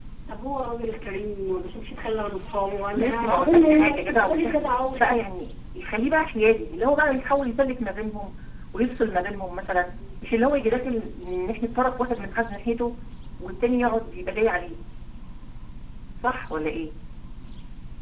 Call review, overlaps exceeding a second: present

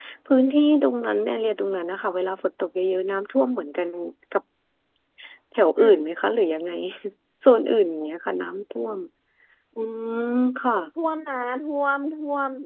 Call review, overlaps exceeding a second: none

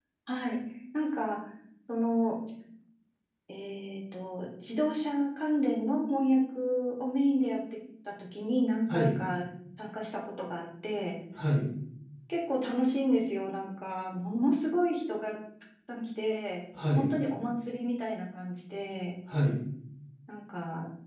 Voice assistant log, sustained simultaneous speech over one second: none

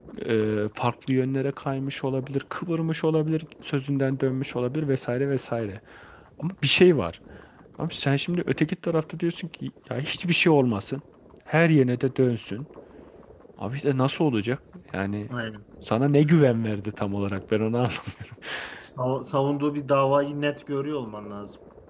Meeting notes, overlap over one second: none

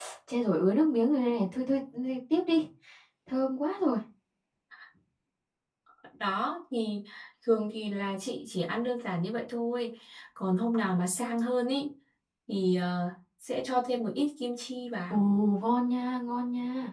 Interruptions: none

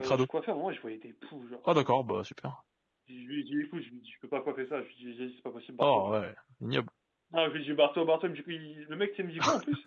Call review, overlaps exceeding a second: none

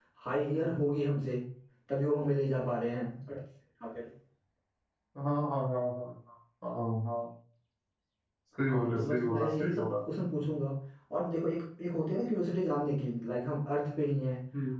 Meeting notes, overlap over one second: present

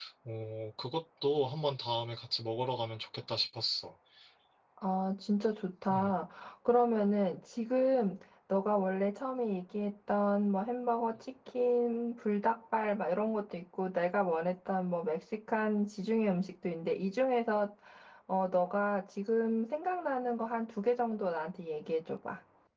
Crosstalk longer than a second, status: none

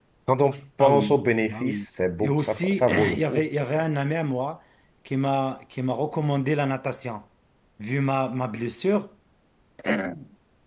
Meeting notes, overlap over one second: present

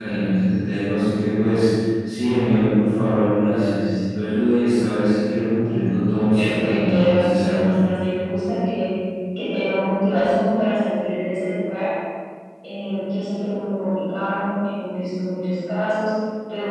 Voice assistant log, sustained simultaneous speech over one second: present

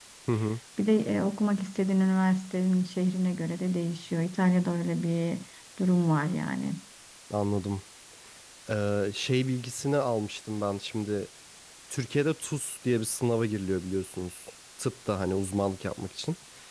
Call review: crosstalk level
none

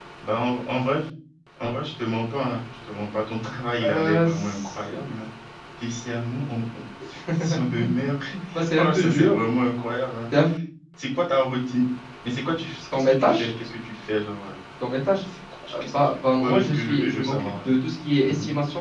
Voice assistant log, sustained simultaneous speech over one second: present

